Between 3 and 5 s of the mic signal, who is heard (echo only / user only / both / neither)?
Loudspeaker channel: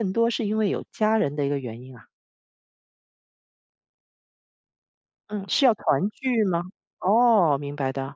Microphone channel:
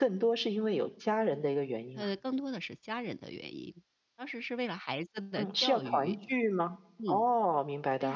user only